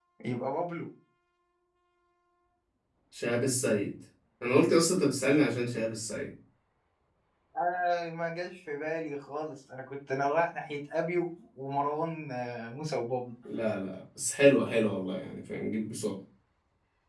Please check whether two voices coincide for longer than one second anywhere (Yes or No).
No